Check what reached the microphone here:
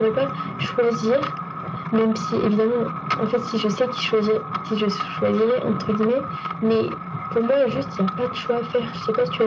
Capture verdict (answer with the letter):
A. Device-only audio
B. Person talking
A